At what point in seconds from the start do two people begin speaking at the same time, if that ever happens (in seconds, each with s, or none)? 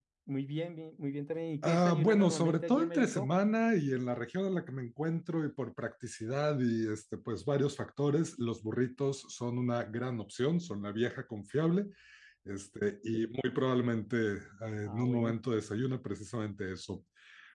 1.6 s